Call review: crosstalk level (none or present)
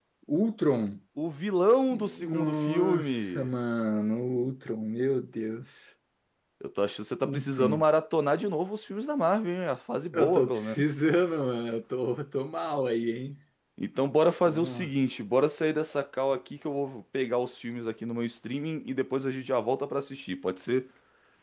present